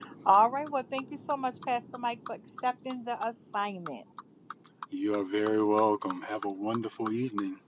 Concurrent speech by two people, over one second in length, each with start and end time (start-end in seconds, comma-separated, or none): none